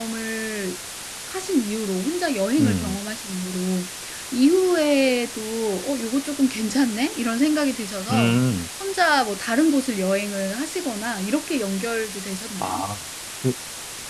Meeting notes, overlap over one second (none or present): none